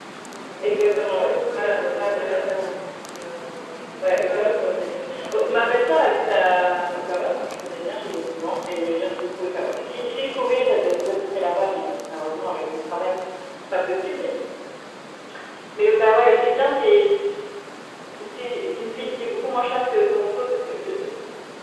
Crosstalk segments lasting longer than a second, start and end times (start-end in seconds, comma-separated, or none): 0.6-2.5, 4.0-5.3